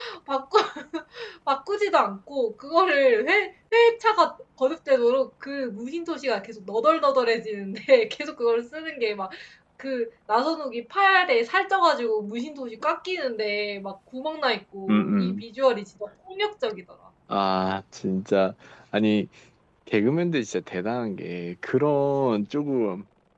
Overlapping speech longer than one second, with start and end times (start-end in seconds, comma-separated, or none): none